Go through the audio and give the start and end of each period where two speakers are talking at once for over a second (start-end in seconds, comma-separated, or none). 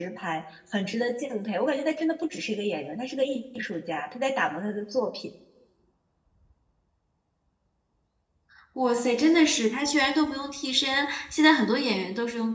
none